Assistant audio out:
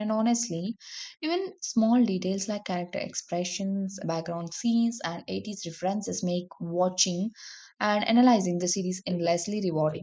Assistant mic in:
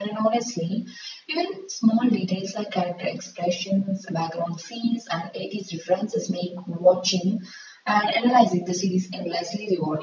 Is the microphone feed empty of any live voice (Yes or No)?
Yes